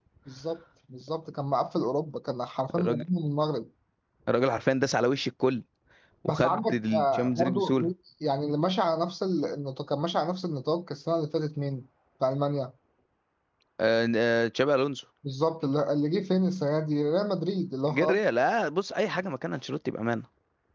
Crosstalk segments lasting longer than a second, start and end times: 6.3-7.9

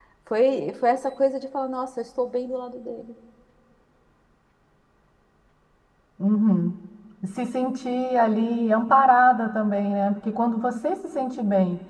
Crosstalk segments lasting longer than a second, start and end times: none

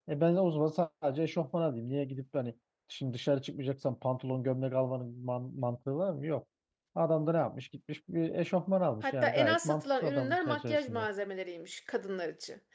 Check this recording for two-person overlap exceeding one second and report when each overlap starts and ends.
9.0-11.0

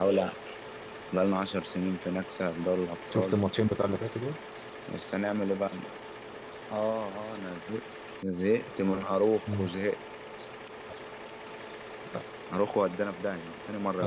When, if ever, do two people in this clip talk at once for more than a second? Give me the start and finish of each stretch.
none

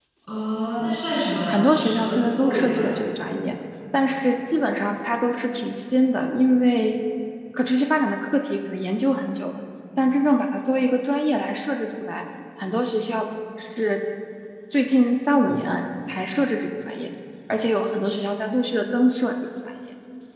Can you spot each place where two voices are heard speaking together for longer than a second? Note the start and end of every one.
1.5-2.9

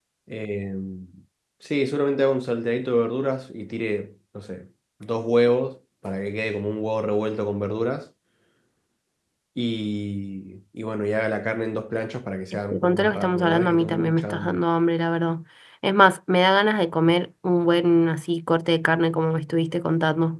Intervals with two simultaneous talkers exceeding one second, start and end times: 12.7-14.6

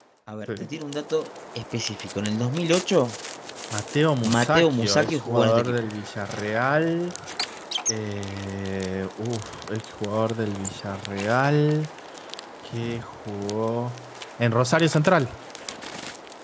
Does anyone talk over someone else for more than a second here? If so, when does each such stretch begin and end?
4.2-5.7

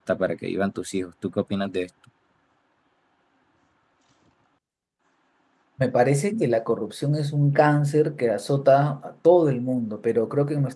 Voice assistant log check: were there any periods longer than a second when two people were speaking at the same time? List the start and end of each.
none

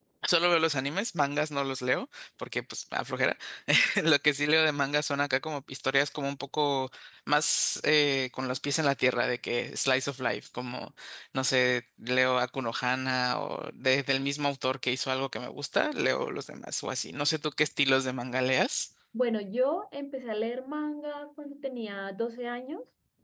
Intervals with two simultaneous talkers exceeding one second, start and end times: none

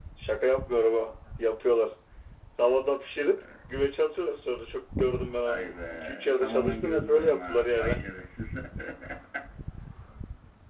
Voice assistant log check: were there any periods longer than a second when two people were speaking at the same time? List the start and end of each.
5.4-8.0

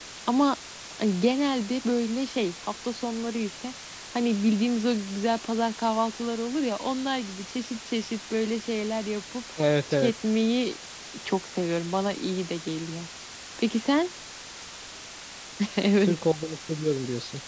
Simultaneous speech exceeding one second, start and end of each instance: none

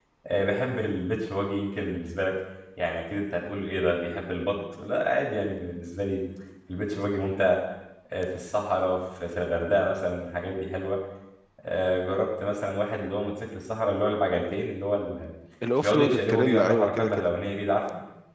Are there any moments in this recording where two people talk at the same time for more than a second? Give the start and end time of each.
15.8-17.3

